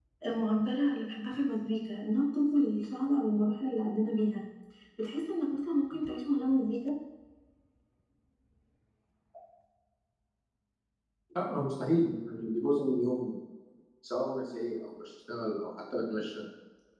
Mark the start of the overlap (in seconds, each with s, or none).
none